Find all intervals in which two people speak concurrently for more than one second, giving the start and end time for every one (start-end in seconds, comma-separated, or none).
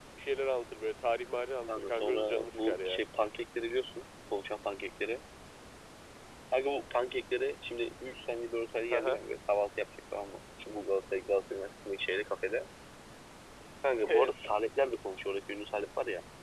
1.7-3.0